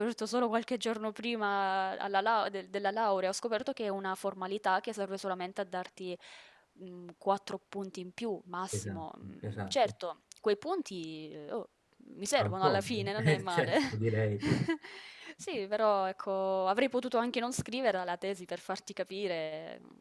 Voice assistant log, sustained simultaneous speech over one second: present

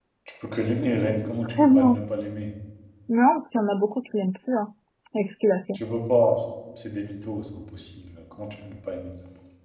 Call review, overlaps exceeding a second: none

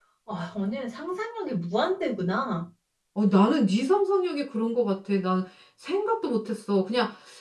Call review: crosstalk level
none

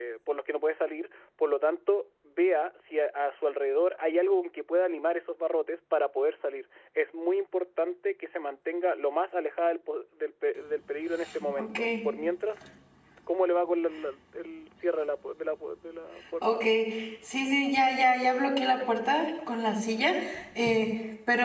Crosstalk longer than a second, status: none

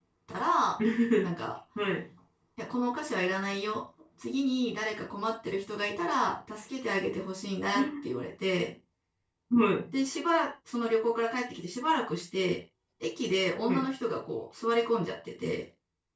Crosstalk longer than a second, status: none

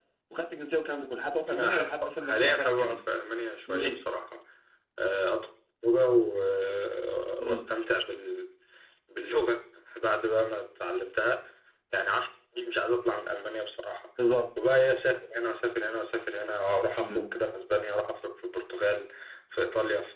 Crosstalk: present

